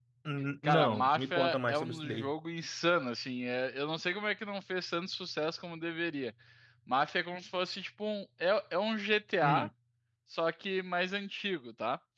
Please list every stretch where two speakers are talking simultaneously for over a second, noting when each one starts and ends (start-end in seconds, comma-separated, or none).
0.6-2.3